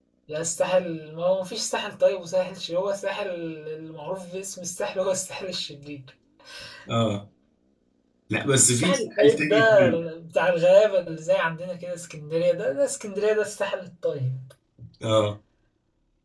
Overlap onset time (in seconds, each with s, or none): 8.7 s